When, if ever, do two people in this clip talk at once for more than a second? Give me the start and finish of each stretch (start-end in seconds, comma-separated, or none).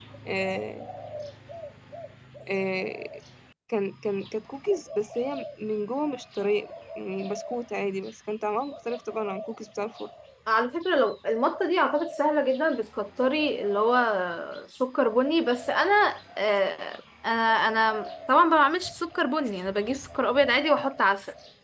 none